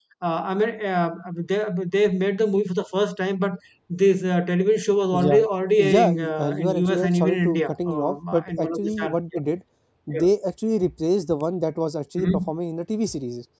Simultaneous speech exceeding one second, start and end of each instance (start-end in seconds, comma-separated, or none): 5.8-9.2